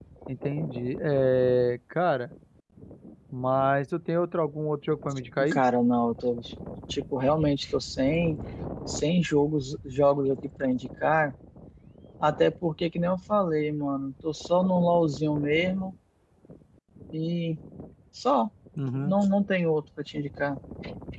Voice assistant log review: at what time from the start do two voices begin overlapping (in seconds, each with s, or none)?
none